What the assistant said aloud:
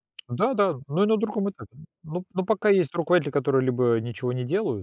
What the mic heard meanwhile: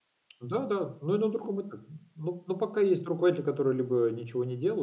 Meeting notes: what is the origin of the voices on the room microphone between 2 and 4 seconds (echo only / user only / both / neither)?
echo only